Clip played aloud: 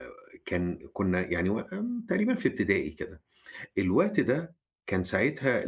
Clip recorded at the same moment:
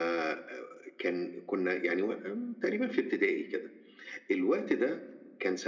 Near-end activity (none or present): none